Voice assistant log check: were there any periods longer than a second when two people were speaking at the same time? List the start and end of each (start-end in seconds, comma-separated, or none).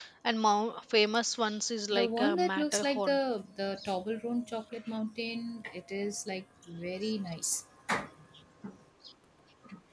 1.9-3.2